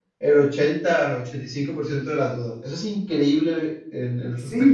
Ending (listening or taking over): taking over